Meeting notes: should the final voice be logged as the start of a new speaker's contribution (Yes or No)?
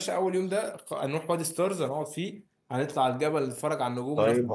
Yes